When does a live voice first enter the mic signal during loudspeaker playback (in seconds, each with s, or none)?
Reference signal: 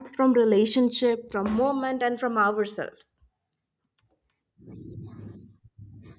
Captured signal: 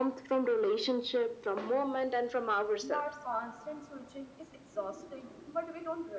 2.8 s